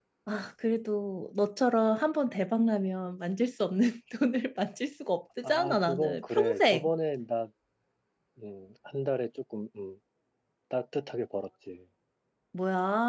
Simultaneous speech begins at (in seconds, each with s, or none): 5.4 s